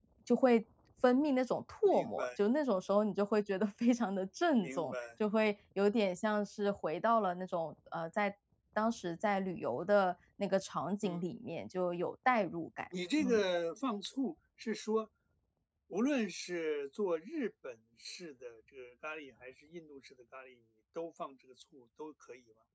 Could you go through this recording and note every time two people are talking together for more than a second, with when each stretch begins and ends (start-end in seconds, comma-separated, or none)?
none